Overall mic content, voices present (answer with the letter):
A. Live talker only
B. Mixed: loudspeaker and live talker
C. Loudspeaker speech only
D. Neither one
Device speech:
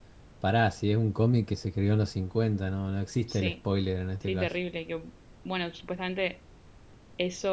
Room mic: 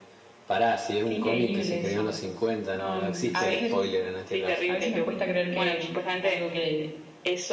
B